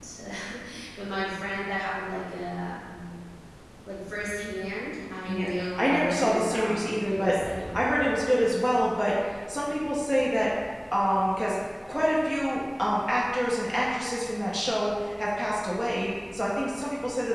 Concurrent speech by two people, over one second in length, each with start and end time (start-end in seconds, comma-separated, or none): 5.3-7.8